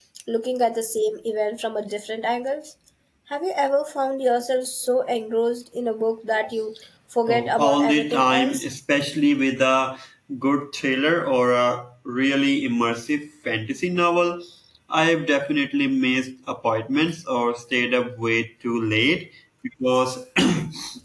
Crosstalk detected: Yes, from 7.3 s

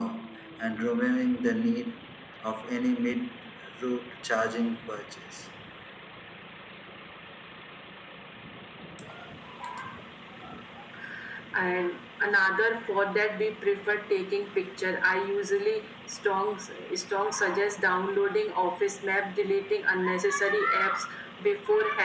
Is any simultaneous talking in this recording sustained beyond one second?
No

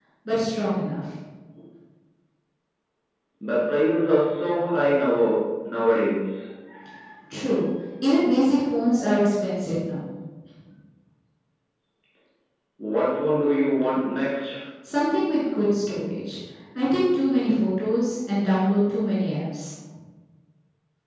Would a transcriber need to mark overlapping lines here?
No

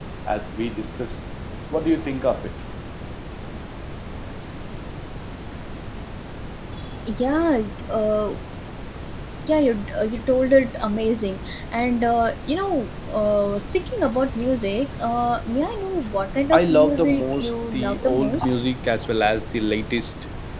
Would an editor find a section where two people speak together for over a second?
Yes, from 16.5 s

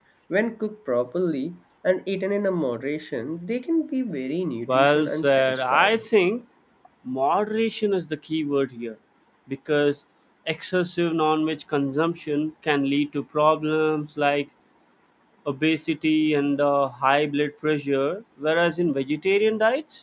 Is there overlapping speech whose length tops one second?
Yes, from 4.7 s

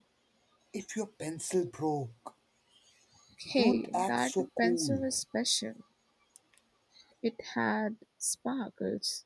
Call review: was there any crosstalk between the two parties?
Yes, from 3.6 s

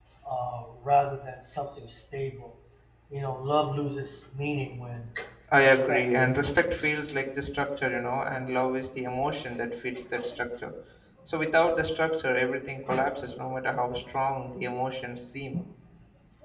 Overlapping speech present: Yes, from 5.6 s

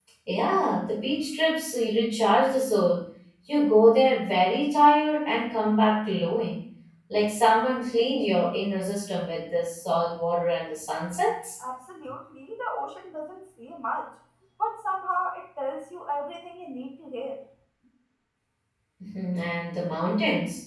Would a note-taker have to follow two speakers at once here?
No

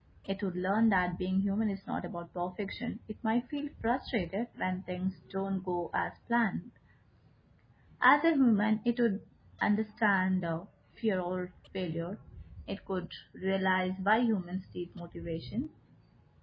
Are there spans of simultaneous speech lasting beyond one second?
No

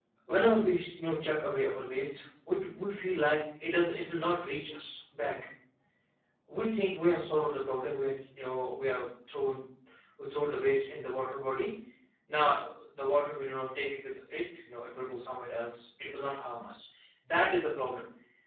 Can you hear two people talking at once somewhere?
No

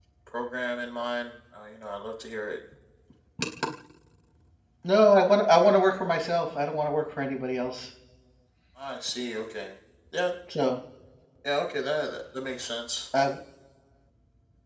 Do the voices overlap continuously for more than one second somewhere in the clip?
No

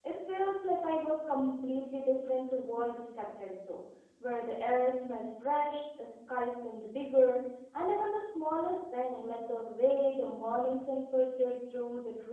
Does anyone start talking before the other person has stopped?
No

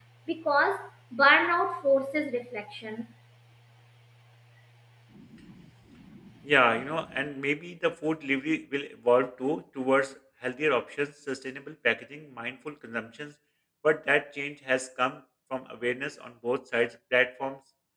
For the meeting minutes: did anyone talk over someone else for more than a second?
No

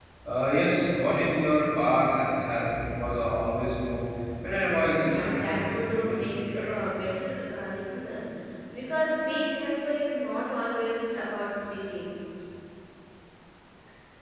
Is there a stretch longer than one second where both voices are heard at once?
Yes, from 5.0 s

